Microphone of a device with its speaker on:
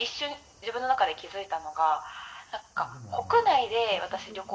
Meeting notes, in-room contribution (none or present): present